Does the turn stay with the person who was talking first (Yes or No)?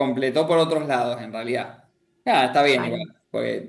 Yes